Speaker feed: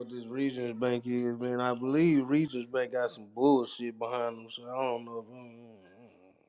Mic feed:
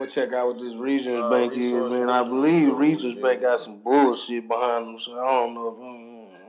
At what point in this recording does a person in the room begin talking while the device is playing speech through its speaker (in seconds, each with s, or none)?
1.2 s